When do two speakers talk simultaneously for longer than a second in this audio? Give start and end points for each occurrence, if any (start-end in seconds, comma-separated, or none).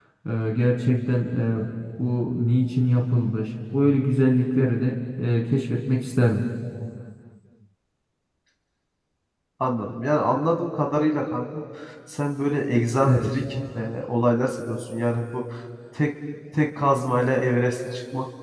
none